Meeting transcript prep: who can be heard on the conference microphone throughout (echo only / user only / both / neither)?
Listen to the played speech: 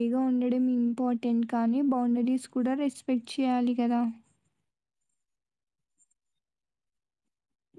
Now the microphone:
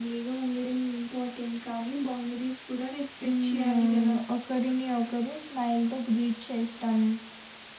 both